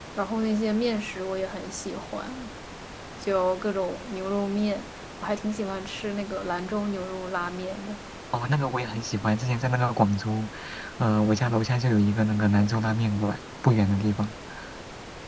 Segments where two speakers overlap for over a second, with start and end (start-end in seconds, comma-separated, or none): none